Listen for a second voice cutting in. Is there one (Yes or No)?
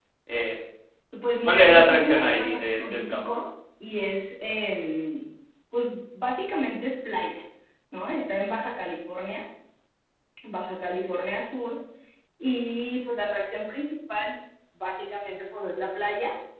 Yes